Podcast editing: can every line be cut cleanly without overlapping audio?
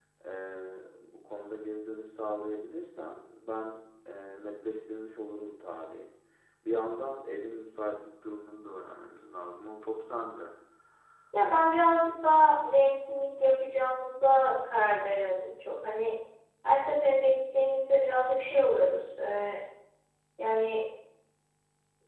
Yes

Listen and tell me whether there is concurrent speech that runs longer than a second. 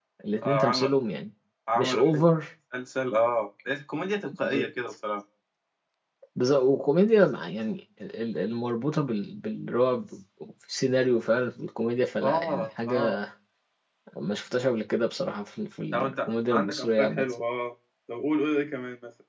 Yes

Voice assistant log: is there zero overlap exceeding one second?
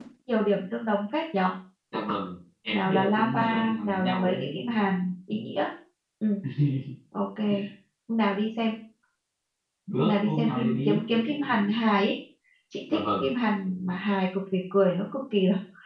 No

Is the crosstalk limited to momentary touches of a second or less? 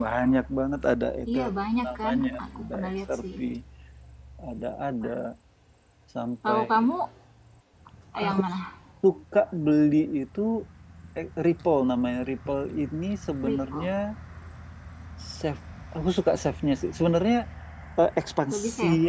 No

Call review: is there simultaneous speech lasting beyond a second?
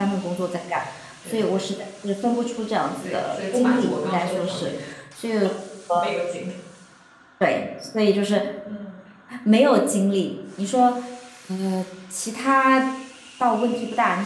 Yes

